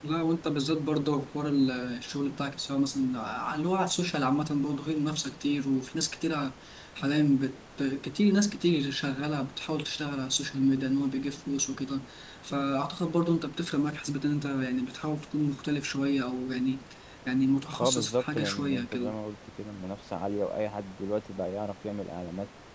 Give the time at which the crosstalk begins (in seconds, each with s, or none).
17.8 s